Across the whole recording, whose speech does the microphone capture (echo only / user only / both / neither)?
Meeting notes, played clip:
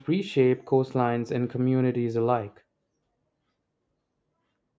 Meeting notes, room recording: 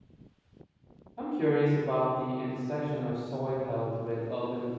user only